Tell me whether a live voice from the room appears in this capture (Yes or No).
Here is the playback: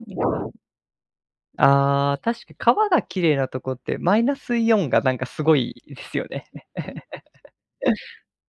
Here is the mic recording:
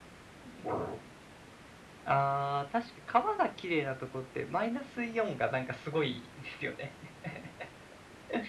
No